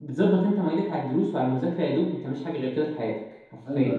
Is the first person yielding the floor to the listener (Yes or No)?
Yes